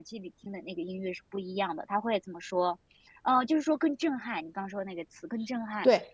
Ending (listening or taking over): taking over